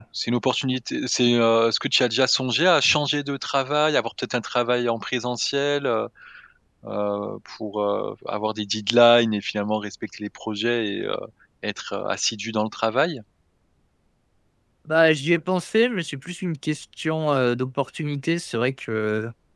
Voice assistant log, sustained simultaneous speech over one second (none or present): none